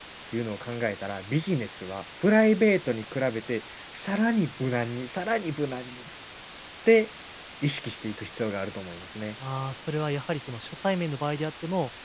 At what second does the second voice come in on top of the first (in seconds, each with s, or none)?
none